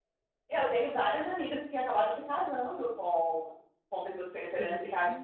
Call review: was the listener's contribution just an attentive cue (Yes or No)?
Yes